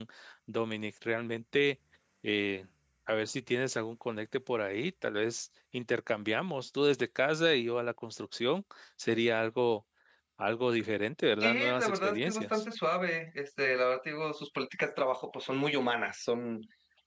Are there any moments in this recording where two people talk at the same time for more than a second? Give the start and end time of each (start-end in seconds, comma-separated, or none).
11.4-12.6